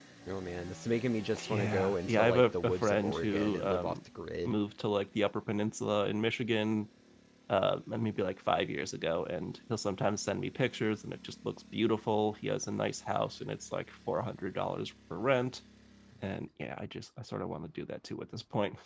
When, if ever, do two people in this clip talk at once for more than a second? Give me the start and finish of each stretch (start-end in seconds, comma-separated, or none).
1.5-4.0